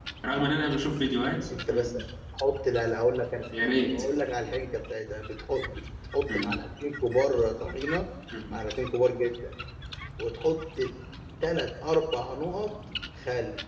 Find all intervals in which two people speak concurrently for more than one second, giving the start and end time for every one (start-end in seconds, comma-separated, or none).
none